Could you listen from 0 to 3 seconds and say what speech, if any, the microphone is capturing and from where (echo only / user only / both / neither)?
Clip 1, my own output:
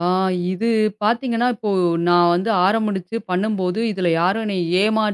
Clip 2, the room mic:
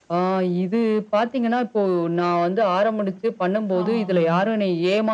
echo only